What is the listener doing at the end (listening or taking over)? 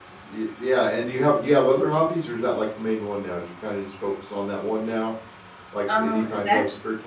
listening